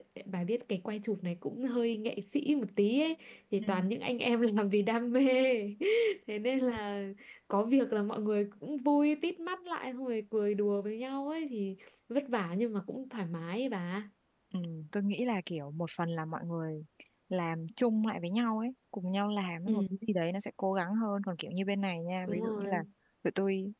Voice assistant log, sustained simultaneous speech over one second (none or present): none